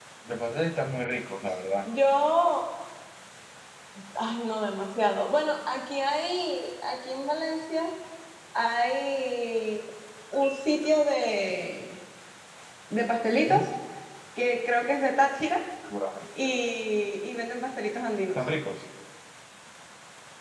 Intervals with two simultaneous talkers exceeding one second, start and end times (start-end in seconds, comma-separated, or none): none